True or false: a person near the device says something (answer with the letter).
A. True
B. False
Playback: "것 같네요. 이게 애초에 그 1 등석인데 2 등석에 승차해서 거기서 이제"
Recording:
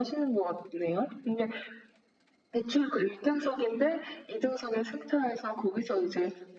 B